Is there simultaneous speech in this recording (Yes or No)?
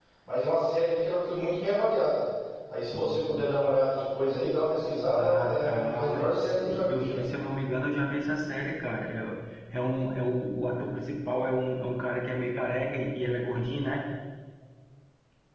Yes